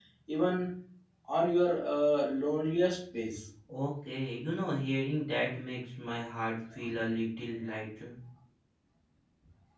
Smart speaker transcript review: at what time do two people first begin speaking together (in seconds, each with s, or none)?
none